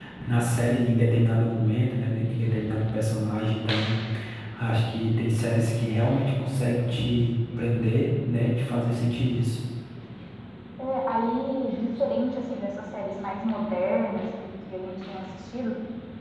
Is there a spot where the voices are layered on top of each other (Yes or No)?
No